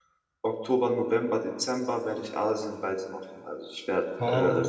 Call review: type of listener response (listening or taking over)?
listening